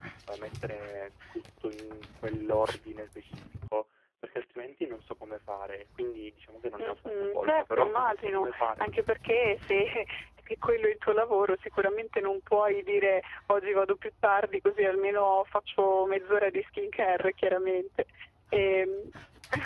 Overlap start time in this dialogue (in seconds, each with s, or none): 6.8 s